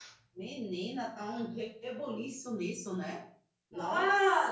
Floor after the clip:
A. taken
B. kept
A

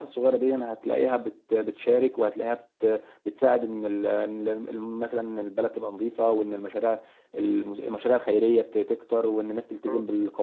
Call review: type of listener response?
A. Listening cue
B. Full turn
A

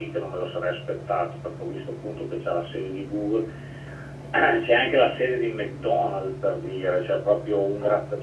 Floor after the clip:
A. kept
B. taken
A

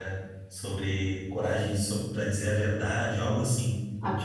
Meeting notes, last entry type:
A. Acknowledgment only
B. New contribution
B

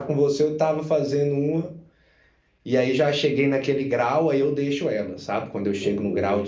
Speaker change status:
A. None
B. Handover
A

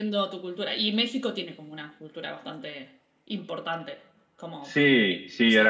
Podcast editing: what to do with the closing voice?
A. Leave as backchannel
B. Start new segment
B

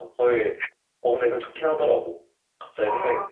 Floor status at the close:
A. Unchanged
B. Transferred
B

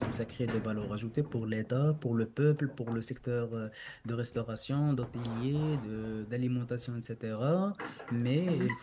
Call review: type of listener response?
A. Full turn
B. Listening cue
B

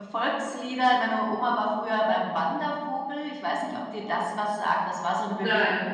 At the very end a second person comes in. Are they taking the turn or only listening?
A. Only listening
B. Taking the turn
A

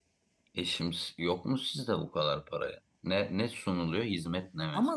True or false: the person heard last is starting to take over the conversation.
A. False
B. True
B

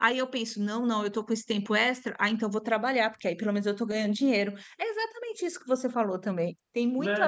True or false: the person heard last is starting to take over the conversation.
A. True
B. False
A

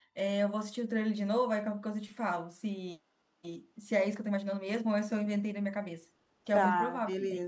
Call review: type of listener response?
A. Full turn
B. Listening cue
A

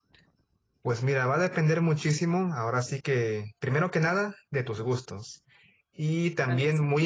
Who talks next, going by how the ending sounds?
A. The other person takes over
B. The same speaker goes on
B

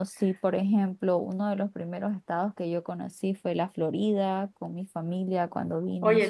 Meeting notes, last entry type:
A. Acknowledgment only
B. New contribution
B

